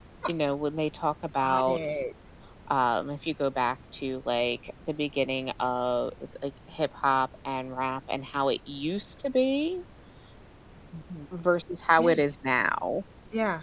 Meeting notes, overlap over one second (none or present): none